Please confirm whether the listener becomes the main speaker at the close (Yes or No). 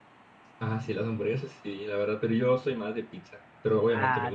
Yes